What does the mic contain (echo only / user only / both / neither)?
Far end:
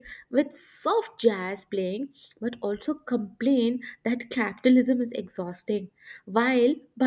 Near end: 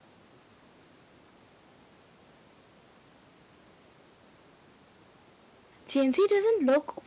user only